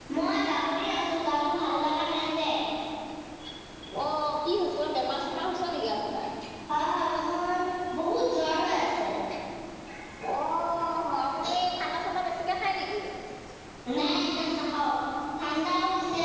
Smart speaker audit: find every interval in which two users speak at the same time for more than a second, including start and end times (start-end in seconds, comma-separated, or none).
none